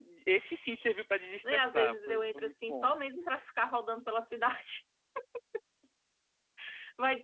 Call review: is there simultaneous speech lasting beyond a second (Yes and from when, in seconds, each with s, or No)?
Yes, from 1.4 s